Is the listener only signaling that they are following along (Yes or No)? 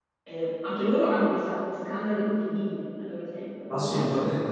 No